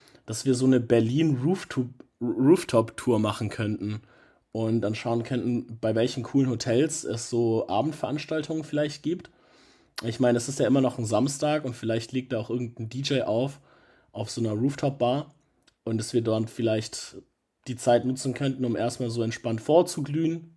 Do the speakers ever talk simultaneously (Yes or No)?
No